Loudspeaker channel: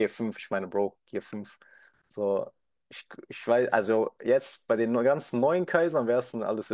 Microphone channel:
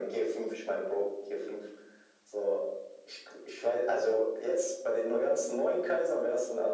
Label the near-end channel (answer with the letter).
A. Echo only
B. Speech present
A